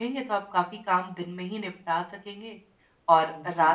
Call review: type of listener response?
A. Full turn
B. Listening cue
B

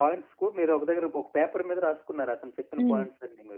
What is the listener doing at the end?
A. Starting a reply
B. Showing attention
A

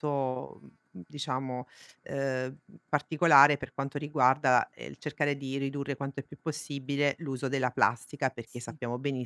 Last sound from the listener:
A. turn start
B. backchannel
B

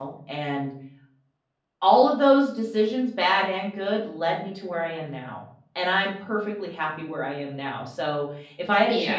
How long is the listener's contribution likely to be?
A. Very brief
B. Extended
A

